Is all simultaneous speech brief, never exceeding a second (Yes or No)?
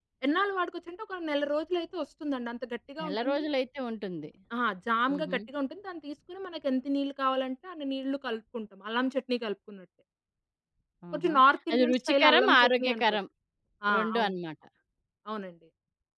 No